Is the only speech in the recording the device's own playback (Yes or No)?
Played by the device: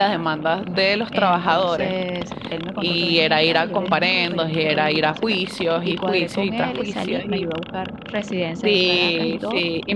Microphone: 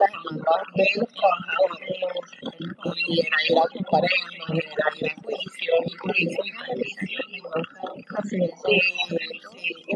Yes